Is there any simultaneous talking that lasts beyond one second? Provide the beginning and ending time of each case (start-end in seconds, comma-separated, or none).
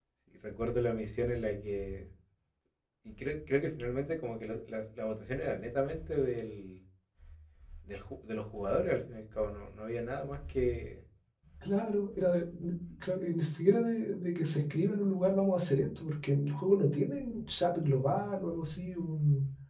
none